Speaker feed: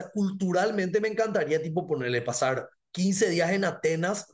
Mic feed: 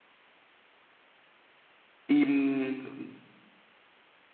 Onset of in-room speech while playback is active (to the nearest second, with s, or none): 2 s